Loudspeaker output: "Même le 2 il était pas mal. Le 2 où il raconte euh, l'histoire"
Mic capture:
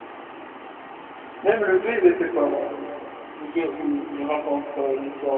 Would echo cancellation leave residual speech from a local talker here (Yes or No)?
No